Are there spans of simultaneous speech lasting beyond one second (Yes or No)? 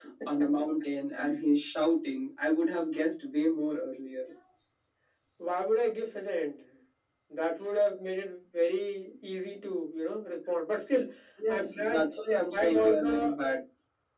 Yes